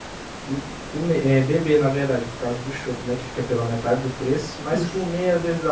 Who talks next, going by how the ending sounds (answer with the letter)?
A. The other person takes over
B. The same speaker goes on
B